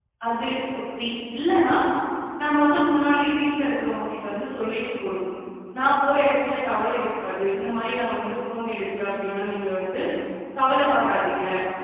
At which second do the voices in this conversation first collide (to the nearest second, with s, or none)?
none